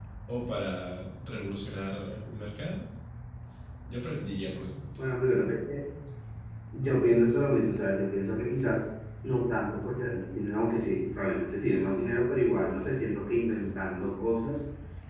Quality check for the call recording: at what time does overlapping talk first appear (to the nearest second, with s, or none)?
none